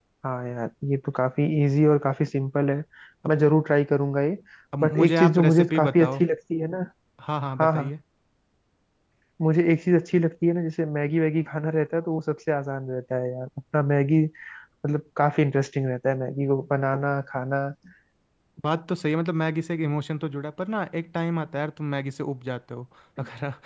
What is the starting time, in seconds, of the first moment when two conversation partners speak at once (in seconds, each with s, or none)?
4.8 s